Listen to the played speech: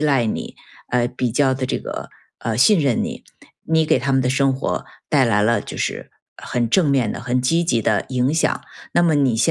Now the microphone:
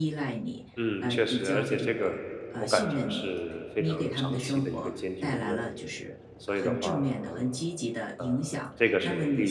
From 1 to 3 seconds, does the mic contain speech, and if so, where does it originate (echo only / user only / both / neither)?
both